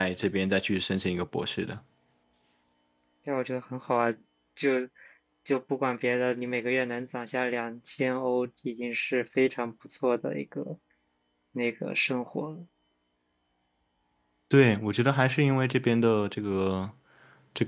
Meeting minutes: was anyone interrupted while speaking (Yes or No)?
No